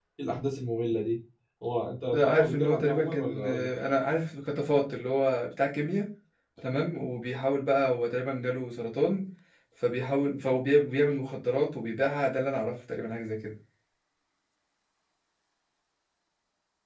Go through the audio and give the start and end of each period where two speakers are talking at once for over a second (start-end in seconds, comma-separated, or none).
2.1-3.7